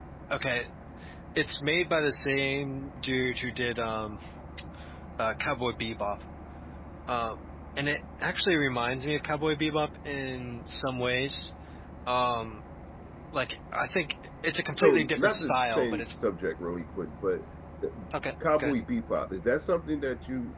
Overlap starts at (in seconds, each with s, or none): 14.8 s